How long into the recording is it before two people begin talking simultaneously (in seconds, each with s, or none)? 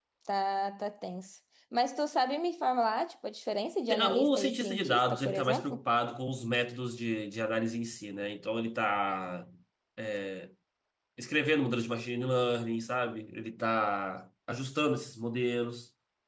3.9 s